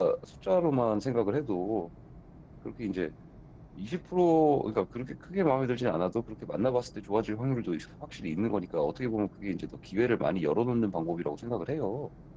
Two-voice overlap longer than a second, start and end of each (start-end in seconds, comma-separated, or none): none